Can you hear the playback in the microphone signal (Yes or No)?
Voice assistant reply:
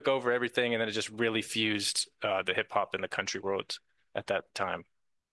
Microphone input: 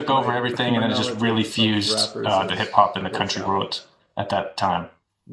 Yes